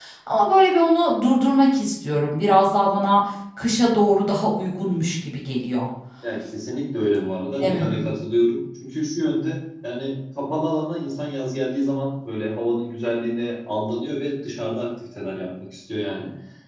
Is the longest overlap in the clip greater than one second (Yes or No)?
No